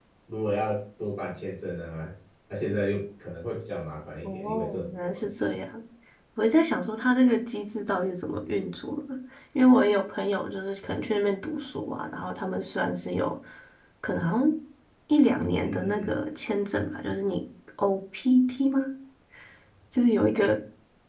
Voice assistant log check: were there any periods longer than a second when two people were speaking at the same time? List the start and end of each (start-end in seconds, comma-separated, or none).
4.2-5.6